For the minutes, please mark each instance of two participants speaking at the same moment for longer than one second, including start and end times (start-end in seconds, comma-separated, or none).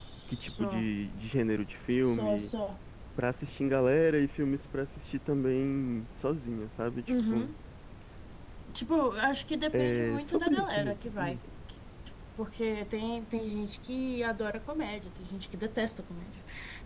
9.7-11.4